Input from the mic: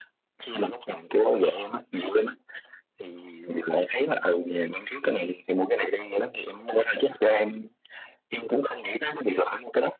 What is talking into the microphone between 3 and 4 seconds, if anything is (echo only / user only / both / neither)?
echo only